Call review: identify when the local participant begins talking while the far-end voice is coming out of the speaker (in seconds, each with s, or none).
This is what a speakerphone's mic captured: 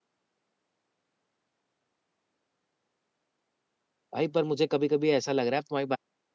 4.1 s